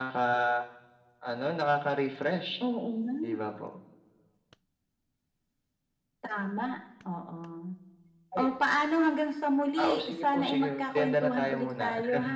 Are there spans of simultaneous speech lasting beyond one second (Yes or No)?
Yes